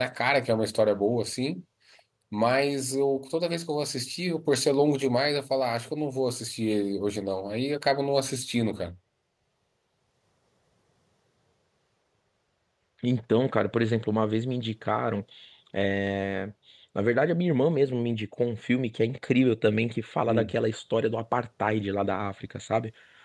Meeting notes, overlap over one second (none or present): none